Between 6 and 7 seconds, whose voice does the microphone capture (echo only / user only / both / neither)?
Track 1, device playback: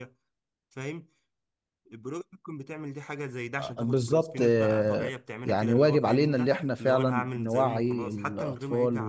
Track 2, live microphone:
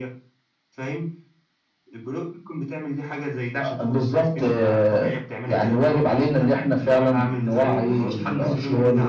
echo only